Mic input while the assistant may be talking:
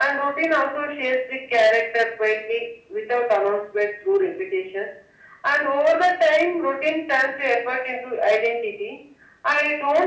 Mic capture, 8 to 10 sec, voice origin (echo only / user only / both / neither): echo only